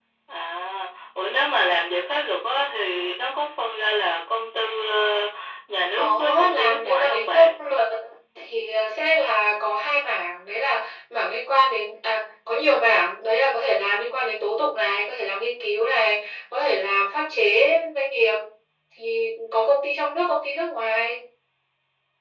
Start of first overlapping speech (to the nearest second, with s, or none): 6 s